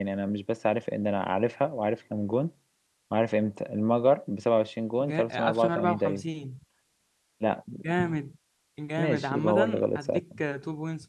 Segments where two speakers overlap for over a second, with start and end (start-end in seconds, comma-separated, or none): 5.0-6.2, 9.0-10.2